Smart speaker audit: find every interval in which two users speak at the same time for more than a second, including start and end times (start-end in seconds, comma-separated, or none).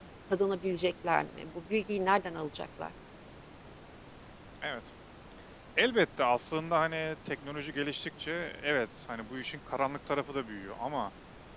none